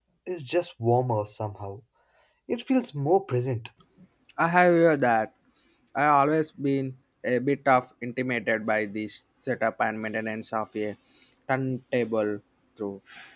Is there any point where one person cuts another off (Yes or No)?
No